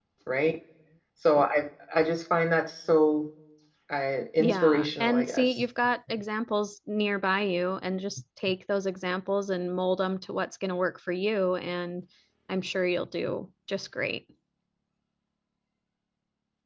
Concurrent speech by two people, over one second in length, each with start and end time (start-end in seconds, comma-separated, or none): 4.4-5.6